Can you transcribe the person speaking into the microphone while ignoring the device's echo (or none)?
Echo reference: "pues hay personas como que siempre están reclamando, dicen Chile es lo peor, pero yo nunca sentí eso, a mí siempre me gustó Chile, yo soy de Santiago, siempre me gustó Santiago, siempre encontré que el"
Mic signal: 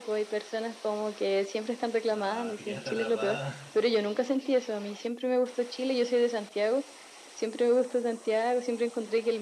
nada, te quedaste atrapada.